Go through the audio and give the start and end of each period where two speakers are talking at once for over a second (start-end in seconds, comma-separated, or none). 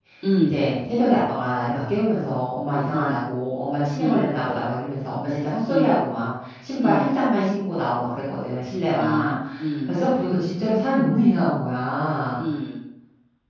none